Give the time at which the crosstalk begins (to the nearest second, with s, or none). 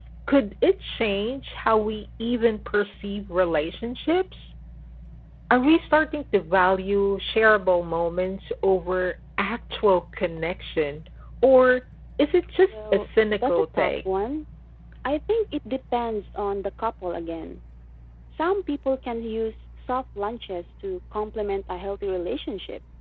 13 s